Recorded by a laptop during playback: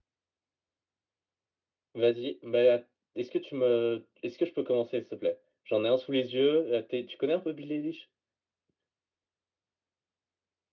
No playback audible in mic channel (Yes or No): No